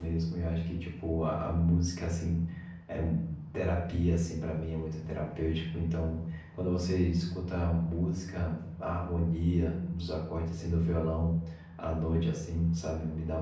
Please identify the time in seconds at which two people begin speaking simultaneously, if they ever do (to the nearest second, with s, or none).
none